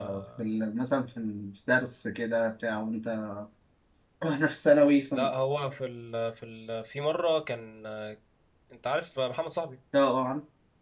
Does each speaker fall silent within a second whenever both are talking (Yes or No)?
Yes